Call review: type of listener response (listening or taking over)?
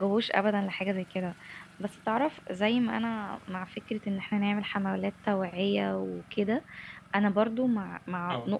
listening